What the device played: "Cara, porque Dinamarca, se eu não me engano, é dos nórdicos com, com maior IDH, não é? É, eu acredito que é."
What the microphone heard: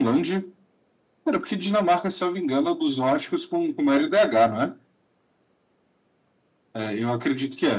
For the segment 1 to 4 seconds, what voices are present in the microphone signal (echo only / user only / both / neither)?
echo only